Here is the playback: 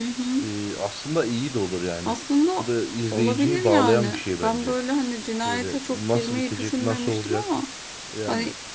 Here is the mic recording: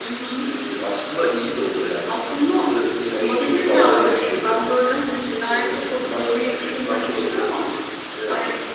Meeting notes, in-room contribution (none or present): none